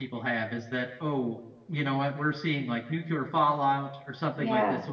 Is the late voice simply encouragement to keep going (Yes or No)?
Yes